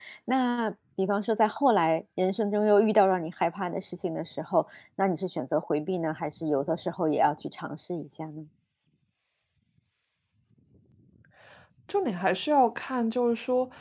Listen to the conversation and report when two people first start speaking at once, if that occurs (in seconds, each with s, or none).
none